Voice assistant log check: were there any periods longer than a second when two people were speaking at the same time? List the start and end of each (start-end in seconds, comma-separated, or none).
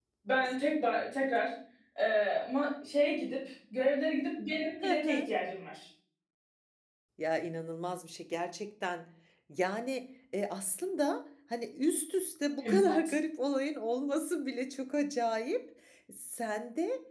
none